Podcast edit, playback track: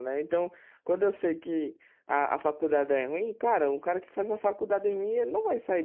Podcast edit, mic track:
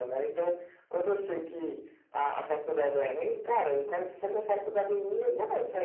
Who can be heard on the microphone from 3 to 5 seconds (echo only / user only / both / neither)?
echo only